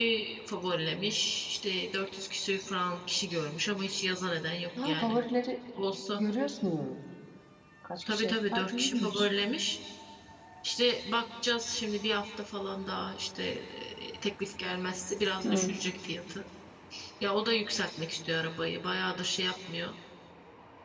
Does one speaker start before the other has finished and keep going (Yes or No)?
Yes